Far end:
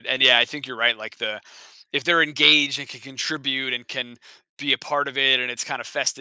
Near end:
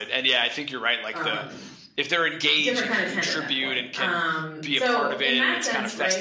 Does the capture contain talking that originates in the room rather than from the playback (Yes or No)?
Yes